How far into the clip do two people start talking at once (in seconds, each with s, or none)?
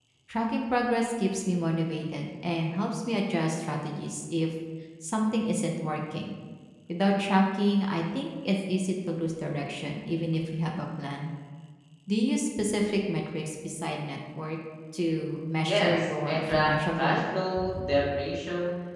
15.7 s